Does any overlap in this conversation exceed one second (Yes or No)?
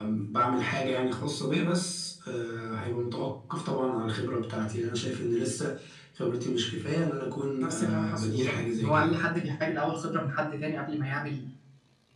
Yes